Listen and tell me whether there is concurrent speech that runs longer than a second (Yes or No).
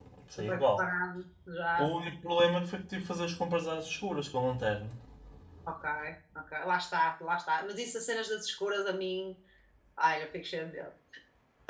No